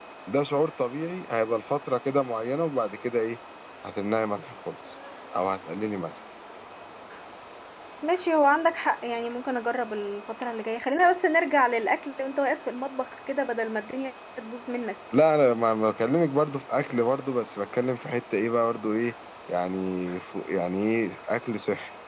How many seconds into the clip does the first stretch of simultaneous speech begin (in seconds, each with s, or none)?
none